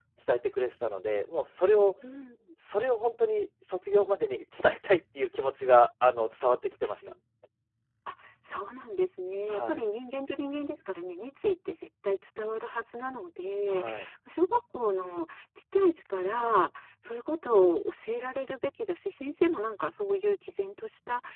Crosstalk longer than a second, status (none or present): none